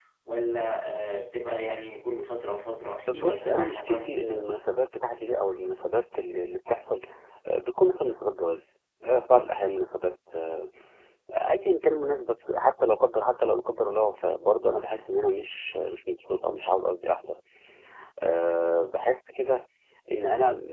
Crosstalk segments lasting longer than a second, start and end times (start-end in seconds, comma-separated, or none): 3.1-4.5